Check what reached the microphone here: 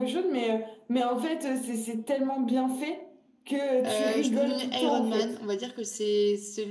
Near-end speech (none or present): present